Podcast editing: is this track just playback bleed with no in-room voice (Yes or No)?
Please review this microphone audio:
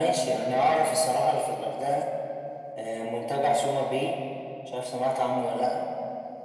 Yes